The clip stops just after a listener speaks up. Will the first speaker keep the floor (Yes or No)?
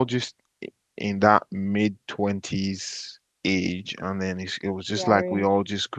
Yes